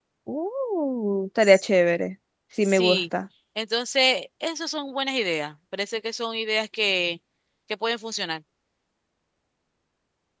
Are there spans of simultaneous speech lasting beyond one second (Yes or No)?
No